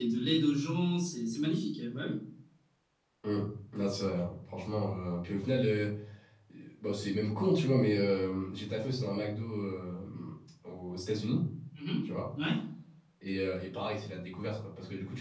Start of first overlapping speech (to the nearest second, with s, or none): none